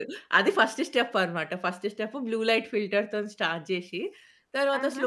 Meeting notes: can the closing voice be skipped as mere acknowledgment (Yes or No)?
Yes